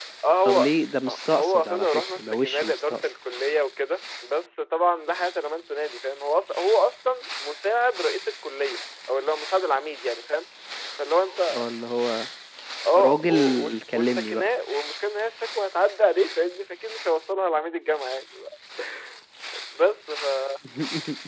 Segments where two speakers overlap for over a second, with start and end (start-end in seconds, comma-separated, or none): 1.4-3.1, 12.9-14.5